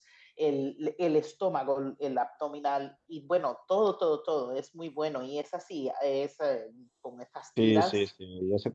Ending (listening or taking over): taking over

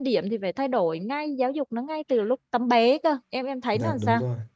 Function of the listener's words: taking over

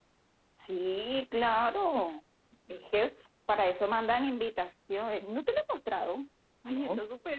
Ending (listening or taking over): listening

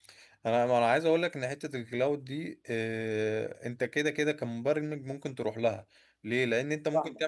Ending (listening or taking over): listening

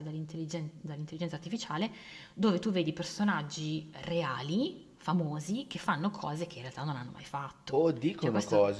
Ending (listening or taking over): taking over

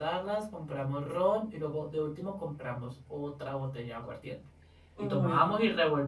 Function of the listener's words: listening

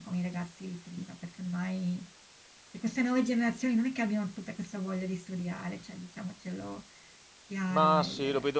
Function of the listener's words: taking over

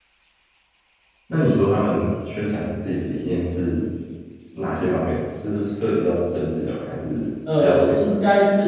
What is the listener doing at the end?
taking over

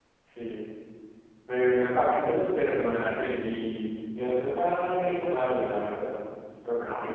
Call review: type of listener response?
taking over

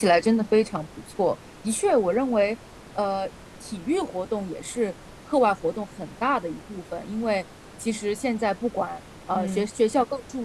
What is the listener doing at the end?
listening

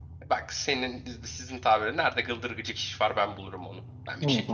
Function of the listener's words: taking over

